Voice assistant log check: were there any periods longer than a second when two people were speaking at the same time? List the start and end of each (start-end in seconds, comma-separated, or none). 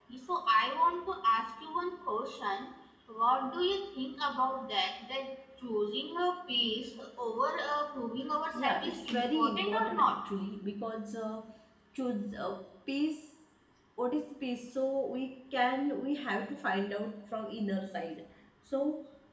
8.6-10.2